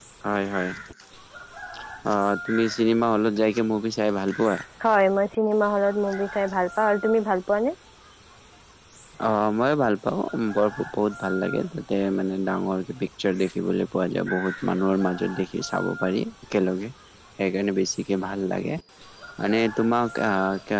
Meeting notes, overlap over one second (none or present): none